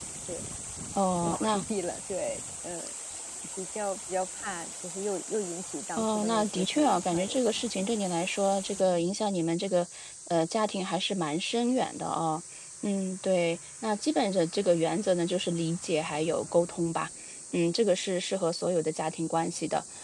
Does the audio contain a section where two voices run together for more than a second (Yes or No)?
Yes